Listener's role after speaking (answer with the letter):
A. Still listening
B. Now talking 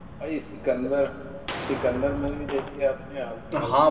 B